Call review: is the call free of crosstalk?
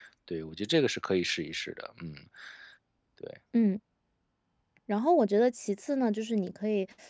Yes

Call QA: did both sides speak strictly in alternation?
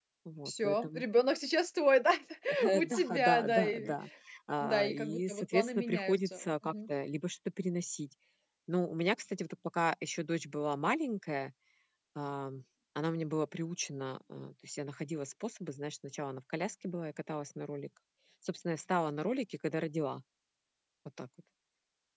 No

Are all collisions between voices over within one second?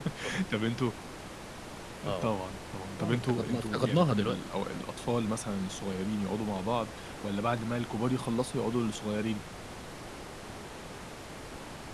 No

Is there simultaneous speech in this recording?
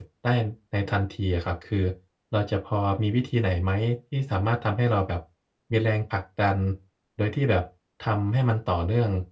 No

